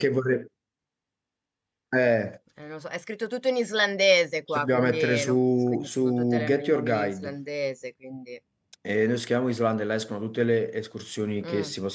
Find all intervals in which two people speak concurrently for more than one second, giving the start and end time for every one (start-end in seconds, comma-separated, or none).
4.5-7.3